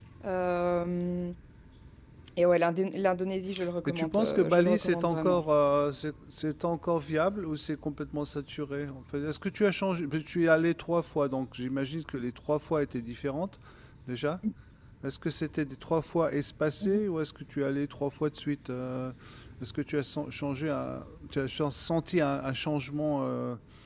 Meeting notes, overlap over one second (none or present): present